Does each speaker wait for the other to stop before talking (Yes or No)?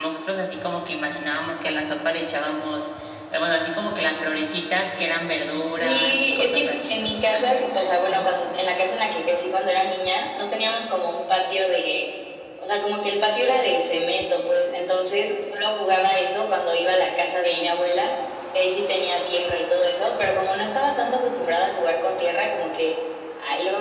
No